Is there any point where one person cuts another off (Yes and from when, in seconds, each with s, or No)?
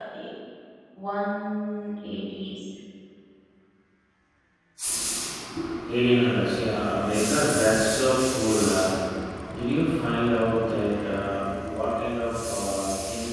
No